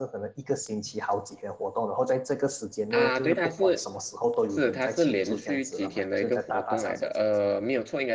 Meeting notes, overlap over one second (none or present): present